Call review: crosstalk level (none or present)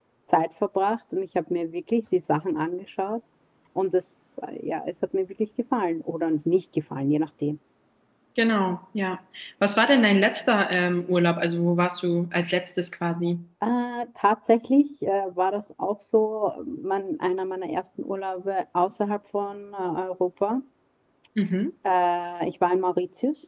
none